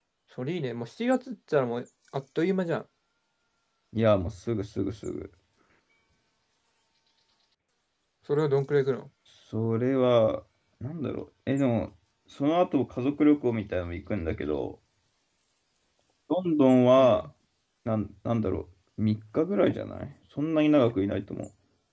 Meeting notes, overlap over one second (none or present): none